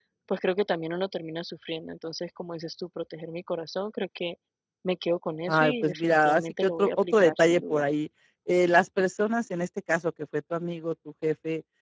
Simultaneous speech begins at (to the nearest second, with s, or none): 5 s